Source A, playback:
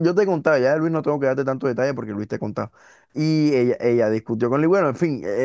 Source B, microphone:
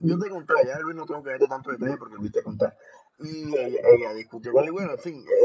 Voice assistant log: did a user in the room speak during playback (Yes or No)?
No